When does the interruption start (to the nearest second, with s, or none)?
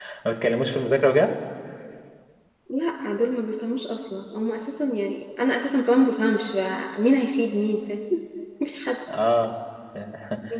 none